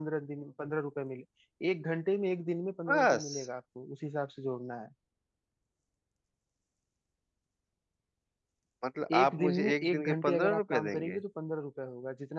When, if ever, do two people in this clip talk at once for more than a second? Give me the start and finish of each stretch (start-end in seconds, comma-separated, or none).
9.2-11.2